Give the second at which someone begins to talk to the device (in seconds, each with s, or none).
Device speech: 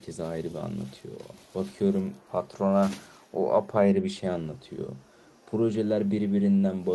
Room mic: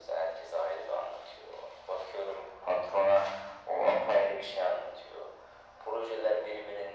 none